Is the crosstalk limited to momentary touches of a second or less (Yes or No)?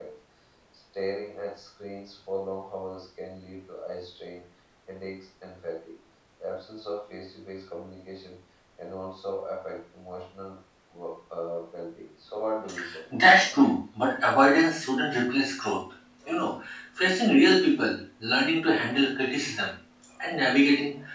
Yes